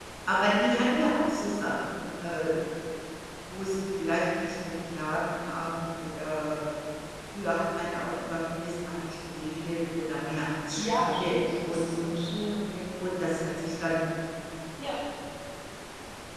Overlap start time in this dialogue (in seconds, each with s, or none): 10.8 s